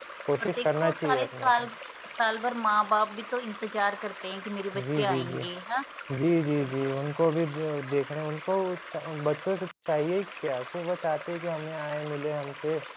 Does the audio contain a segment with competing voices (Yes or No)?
Yes